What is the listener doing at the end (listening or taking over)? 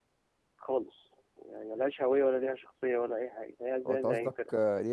taking over